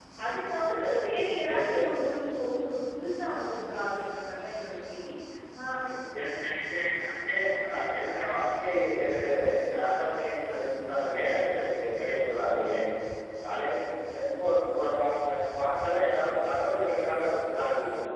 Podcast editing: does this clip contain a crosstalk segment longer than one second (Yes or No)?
No